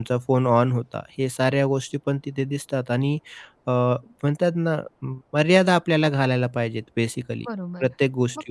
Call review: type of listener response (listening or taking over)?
taking over